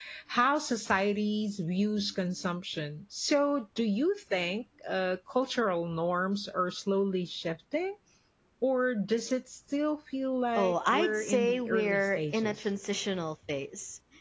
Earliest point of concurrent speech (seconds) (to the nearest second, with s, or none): 11 s